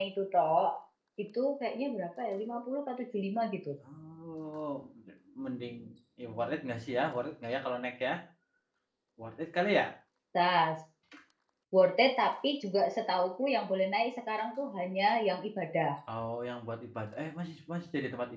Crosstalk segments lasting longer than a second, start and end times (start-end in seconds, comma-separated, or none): none